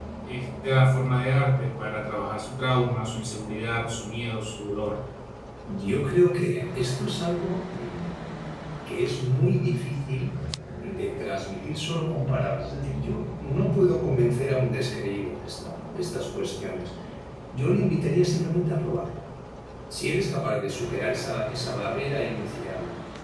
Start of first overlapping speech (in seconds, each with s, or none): none